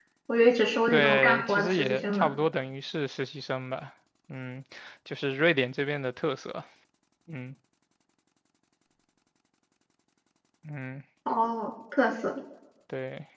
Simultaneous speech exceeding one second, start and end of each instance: 0.9-2.3

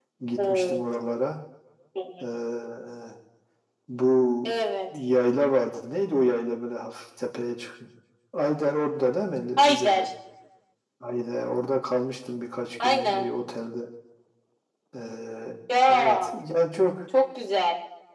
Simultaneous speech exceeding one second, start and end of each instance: none

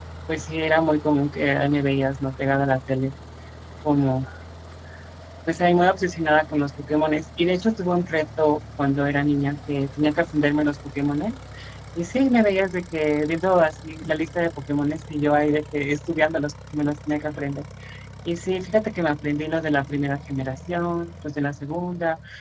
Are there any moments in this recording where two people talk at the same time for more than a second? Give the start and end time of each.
none

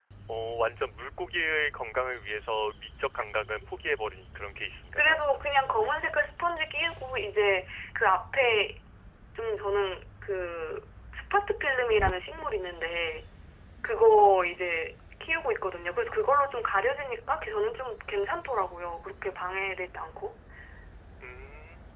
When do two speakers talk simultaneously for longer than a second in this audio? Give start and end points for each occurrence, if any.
none

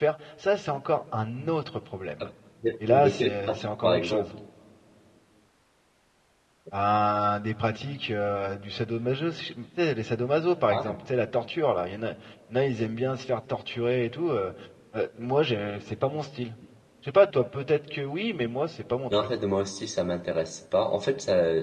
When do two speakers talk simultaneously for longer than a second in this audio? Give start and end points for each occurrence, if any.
2.9-4.3

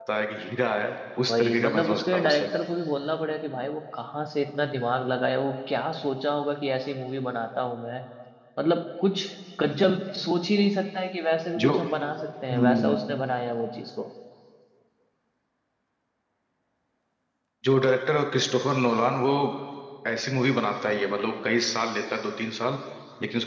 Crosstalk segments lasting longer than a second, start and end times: 1.3-2.5

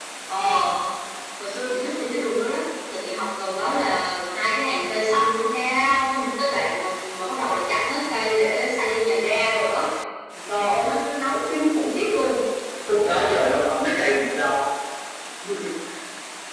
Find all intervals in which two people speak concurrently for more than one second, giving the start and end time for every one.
none

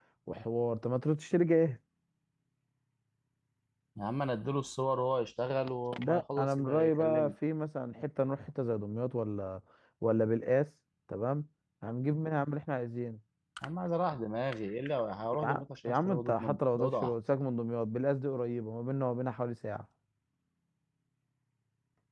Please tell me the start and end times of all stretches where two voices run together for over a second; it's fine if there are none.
6.0-7.3, 15.4-17.1

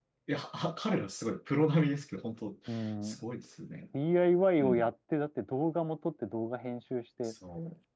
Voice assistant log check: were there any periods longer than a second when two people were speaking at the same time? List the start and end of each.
none

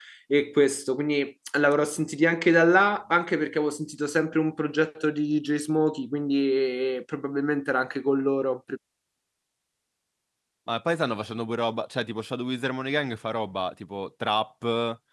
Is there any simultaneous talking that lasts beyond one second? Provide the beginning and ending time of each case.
none

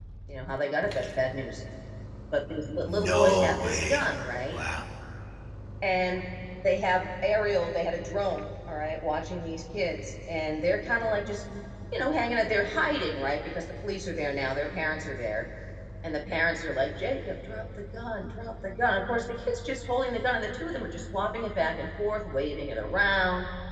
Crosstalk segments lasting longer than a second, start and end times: 2.8-4.0

